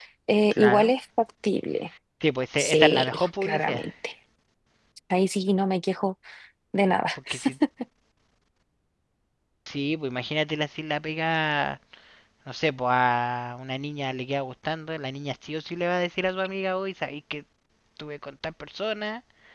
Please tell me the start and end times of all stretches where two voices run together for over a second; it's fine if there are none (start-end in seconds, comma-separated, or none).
2.6-3.8